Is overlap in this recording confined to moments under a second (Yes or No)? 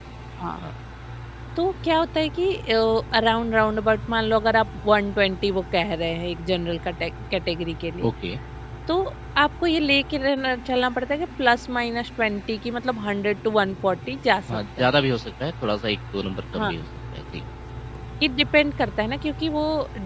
Yes